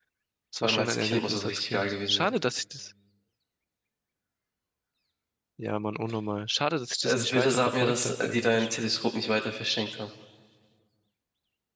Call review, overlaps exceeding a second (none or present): present